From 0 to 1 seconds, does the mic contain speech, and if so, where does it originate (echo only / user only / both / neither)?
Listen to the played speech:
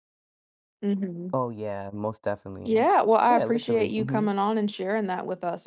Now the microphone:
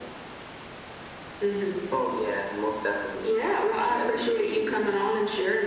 neither